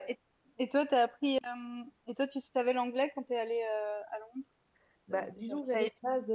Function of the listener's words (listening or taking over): taking over